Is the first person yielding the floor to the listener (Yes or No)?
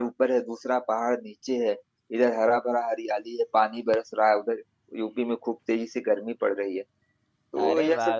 Yes